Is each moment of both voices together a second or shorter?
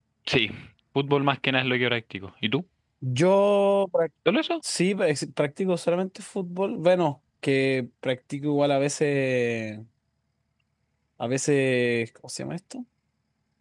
Yes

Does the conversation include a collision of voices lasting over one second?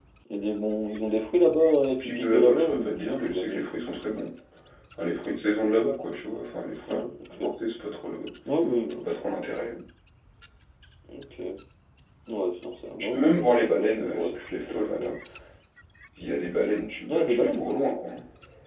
Yes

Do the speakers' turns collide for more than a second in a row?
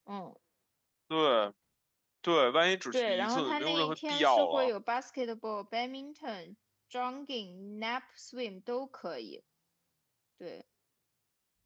Yes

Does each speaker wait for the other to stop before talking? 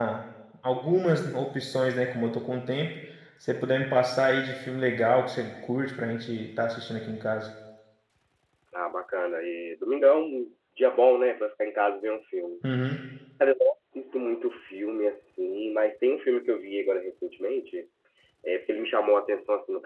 Yes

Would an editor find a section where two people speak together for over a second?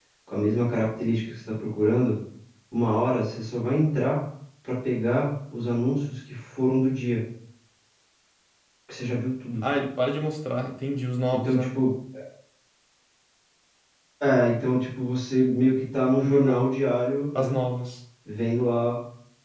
No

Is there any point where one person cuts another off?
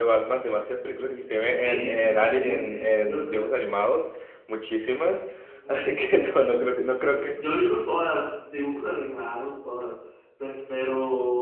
Yes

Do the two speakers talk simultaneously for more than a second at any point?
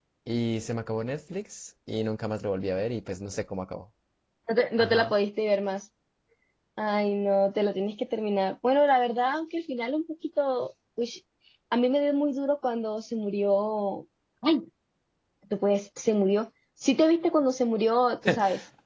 No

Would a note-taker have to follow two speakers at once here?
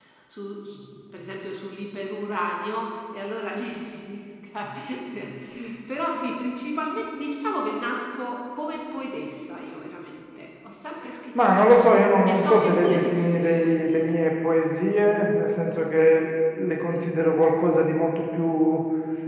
Yes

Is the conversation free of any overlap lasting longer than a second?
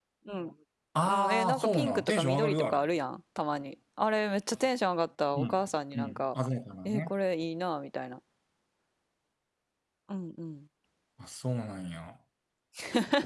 No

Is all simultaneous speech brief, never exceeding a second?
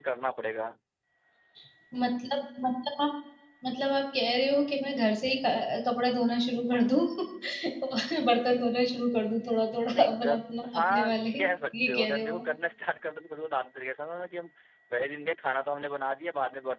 No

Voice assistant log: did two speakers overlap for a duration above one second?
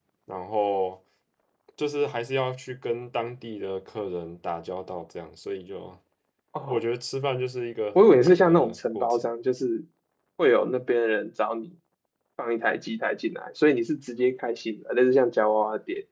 Yes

